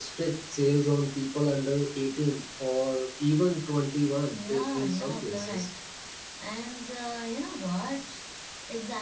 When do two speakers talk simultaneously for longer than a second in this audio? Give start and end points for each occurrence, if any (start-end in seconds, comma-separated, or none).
4.3-5.7